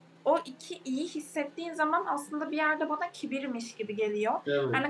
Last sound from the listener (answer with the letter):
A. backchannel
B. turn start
A